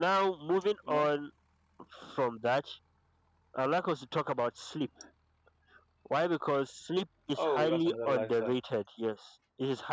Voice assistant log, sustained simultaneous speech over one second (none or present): present